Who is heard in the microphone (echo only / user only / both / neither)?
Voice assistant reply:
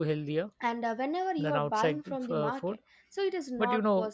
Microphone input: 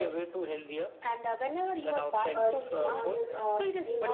both